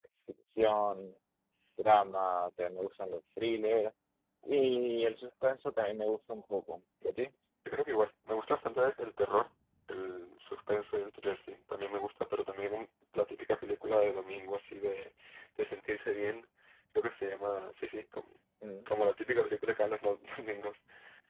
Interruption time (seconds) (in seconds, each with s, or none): none